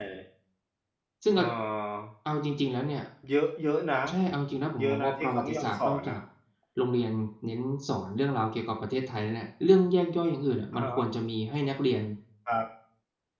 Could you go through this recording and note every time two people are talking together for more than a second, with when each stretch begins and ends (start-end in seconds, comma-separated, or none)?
4.8-6.2